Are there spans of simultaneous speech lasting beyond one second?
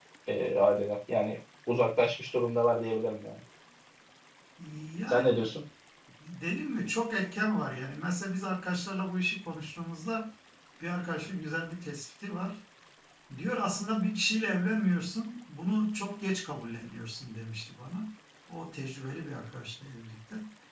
No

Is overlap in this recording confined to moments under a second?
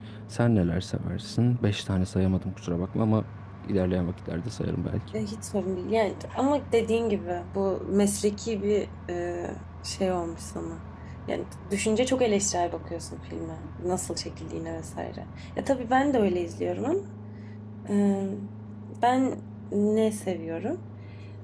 Yes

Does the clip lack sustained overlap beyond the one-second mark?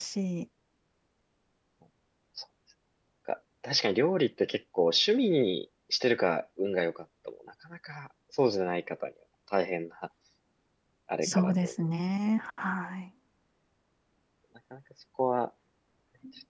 Yes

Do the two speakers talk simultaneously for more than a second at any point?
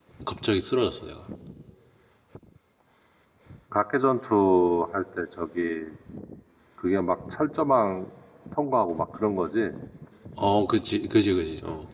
No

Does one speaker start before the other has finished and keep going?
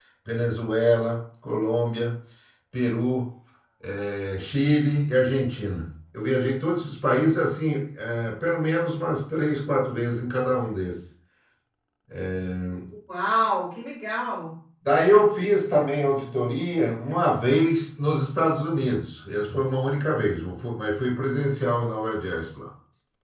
No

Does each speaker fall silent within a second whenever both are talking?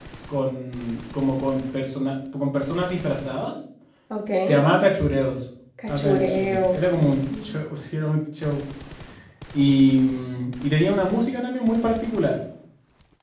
No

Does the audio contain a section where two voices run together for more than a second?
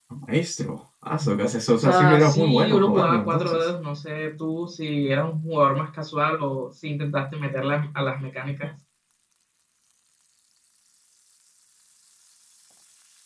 Yes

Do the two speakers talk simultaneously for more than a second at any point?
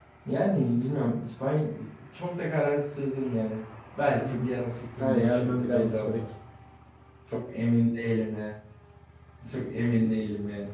Yes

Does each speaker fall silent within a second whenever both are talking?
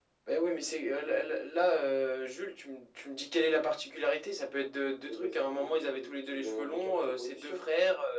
No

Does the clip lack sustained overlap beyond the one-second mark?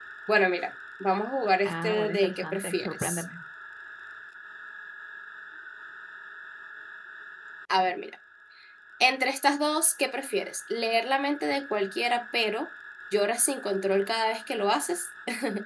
No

